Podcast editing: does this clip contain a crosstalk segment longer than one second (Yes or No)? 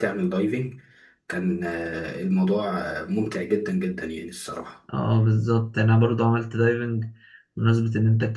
No